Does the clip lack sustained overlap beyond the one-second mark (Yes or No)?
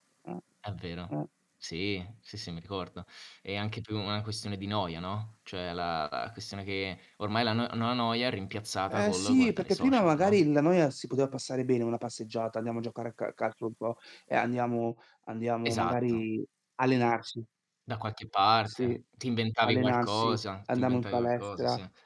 No